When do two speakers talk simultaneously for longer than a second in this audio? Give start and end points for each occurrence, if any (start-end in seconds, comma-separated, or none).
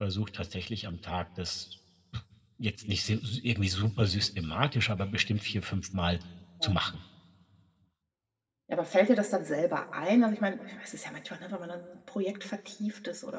none